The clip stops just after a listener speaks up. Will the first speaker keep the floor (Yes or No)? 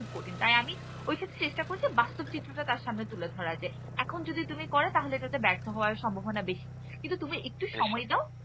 Yes